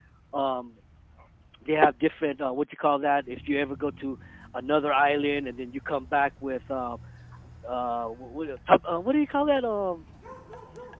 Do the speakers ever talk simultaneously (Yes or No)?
No